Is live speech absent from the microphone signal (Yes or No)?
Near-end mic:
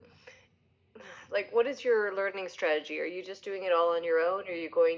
Yes